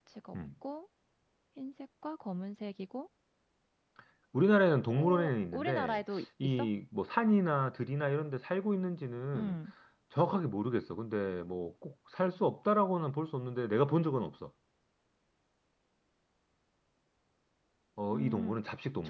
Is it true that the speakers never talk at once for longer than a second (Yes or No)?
No